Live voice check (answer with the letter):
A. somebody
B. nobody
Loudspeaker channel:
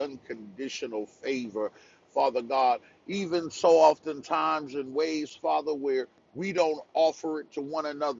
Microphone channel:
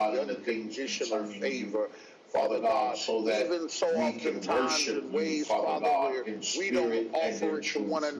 A